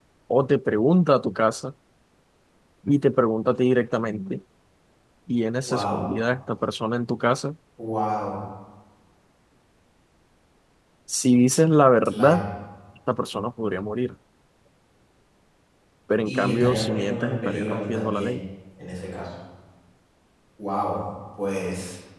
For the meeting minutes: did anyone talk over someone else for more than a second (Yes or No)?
Yes